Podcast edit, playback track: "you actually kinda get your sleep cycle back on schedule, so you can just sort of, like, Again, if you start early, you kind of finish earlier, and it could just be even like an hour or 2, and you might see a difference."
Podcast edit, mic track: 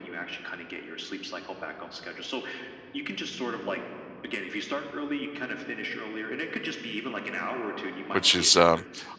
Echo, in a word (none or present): present